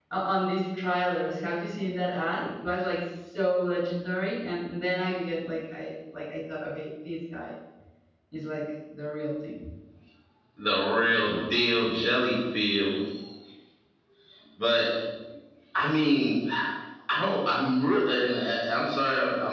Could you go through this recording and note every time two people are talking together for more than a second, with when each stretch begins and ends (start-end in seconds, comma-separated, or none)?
none